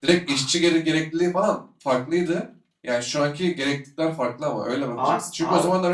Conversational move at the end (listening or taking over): listening